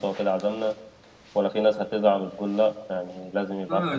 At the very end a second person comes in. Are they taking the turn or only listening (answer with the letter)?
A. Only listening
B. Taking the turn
B